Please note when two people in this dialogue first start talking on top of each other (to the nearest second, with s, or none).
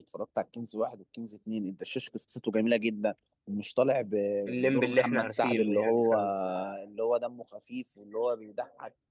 4 s